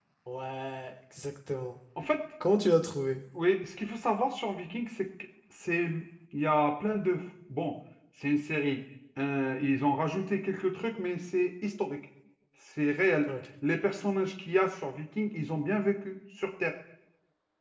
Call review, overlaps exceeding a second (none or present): none